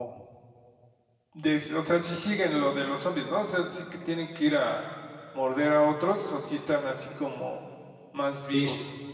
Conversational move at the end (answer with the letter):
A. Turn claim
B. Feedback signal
A